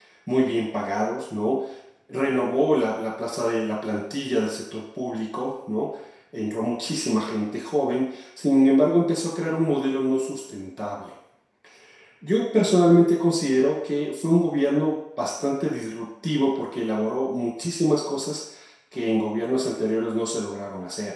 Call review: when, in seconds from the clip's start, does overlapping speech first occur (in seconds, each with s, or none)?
none